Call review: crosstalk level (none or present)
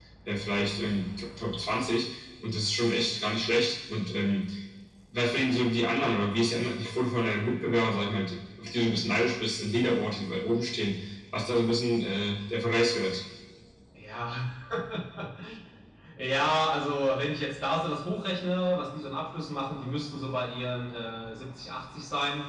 none